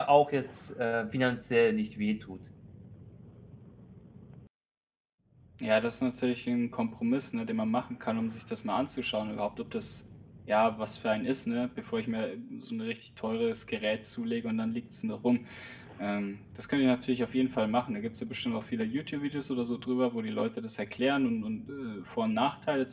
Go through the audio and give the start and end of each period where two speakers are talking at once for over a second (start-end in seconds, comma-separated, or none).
none